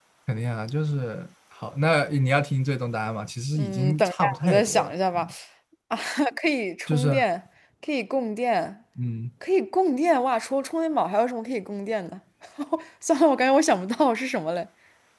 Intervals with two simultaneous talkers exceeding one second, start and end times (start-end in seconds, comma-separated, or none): 3.6-5.3